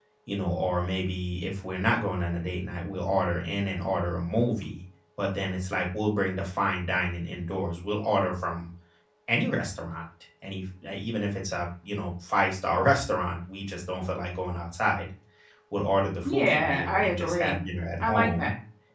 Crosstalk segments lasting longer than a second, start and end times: 16.2-17.6

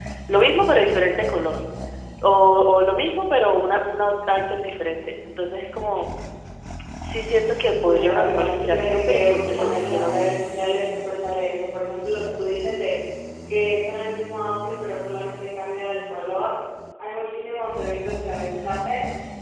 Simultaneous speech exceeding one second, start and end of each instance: 7.8-10.5

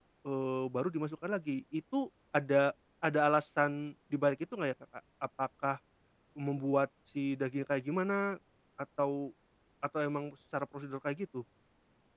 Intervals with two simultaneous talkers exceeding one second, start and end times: none

